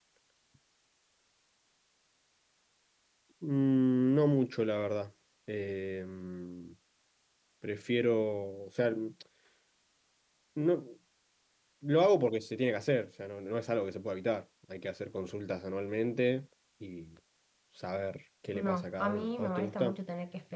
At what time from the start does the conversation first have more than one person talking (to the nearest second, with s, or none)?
19 s